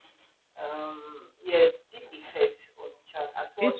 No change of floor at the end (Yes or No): No